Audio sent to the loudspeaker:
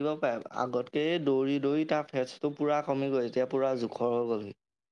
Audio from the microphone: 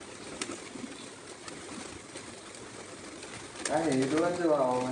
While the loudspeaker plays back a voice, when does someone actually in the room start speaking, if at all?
3.7 s

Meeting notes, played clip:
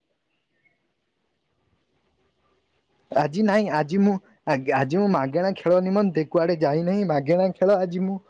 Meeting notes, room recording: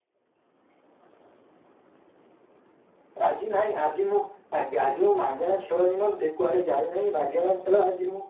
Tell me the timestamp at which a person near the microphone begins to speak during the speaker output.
none

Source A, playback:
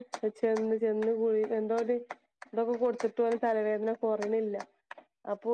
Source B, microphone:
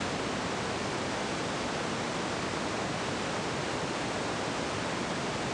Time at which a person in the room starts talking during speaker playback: none

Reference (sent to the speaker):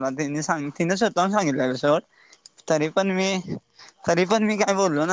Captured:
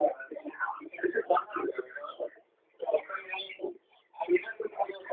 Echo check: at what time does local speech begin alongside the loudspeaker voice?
none

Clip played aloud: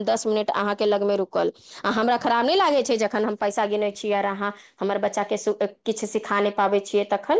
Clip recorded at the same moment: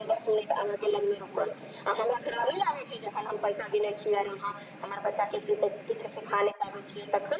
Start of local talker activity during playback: none

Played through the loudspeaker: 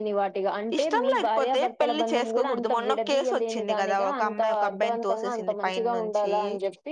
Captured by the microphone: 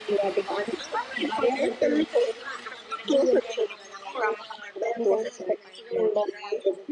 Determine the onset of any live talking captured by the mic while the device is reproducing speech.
none

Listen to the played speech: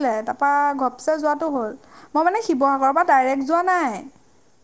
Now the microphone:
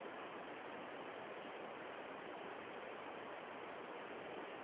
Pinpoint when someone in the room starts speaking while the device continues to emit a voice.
none

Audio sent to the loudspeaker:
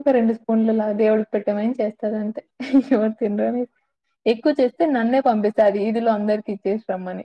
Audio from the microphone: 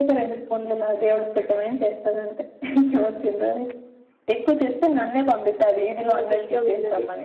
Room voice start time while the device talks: 6.1 s

